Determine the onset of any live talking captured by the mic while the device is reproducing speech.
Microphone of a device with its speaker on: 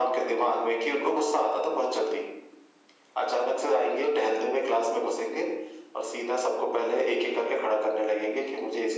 none

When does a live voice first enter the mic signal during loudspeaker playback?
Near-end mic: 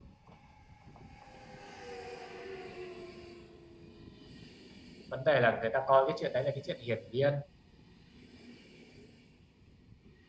5 s

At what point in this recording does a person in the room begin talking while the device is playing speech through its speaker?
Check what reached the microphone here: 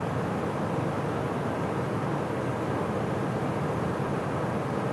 none

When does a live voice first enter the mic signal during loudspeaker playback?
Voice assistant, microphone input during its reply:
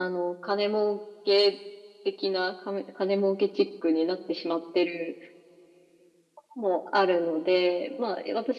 none

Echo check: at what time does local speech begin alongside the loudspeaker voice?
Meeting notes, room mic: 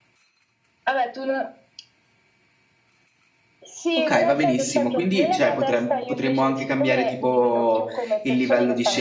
4 s

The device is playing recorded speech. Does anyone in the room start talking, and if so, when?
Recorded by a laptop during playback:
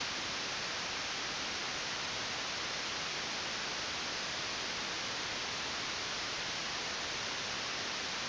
none

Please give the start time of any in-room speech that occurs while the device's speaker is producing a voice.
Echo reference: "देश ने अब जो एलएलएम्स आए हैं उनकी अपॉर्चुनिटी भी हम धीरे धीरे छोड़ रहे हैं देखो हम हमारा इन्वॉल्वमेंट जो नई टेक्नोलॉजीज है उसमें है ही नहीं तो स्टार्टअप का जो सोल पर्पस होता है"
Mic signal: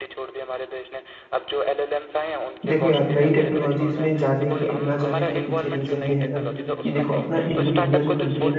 3 s

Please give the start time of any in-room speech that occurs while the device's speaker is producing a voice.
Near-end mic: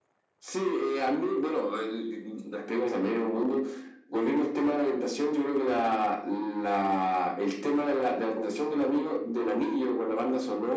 none

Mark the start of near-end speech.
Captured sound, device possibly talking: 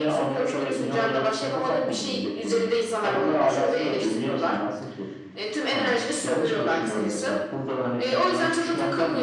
none

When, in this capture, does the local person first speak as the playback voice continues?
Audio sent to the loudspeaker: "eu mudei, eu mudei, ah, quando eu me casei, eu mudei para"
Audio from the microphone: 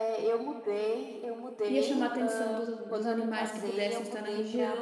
2 s

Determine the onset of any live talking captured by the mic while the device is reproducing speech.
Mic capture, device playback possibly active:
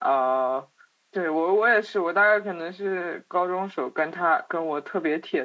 none

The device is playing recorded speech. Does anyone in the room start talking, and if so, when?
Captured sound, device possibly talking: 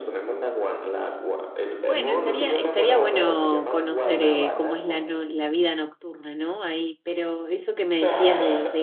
2 s

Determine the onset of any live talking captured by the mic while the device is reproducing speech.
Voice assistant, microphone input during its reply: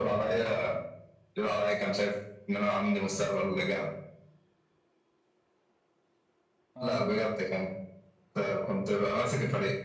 7 s

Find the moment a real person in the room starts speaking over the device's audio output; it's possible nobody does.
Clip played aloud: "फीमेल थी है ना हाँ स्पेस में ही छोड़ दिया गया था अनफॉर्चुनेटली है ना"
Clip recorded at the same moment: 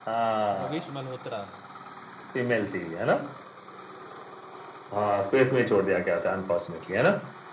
1 s

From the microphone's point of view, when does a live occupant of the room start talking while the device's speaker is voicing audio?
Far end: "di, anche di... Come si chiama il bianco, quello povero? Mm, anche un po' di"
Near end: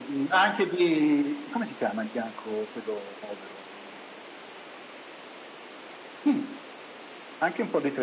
none

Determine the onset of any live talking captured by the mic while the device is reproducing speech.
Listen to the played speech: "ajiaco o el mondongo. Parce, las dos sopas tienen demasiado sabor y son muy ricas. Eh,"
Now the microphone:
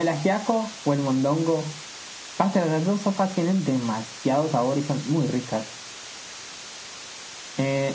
none

